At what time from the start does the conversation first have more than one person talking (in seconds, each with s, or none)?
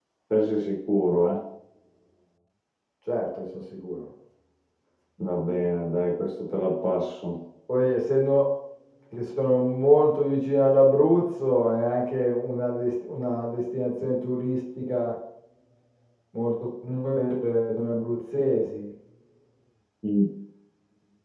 none